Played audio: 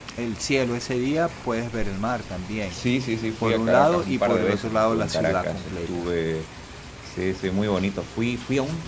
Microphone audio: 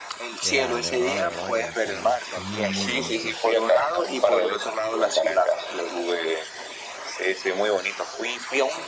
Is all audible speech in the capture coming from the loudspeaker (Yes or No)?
No